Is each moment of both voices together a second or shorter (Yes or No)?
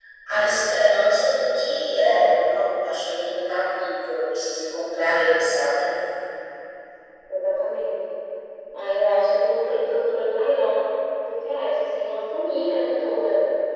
Yes